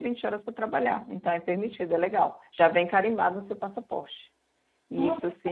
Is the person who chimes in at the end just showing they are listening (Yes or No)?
No